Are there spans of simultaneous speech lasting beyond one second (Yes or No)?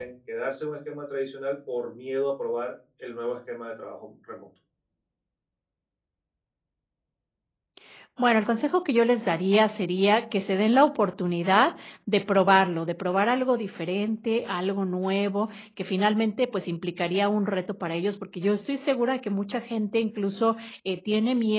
No